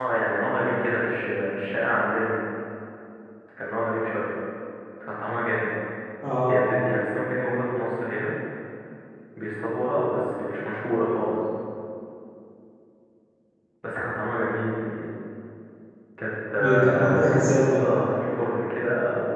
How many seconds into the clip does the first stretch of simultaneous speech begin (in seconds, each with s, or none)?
16.6 s